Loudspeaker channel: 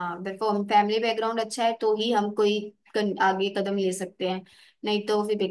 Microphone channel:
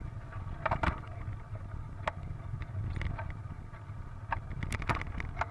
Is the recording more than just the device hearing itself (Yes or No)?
No